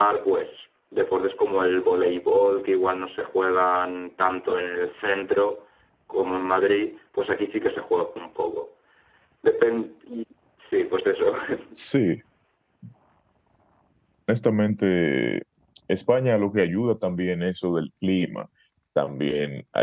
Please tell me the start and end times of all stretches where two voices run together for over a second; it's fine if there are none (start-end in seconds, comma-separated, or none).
none